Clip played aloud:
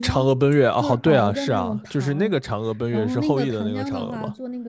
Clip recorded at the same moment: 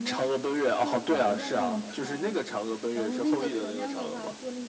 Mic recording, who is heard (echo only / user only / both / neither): echo only